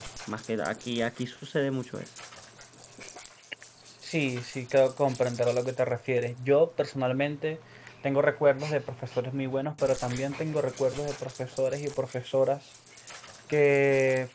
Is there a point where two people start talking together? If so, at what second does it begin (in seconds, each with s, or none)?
none